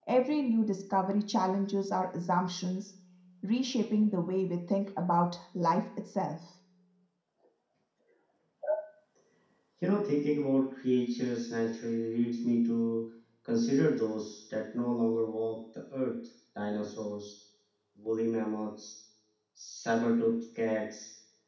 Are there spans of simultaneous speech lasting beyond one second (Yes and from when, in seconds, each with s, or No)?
No